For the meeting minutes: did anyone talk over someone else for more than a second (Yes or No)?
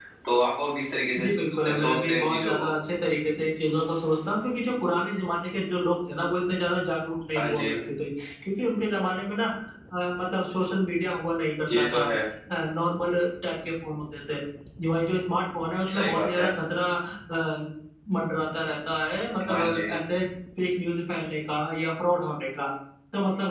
Yes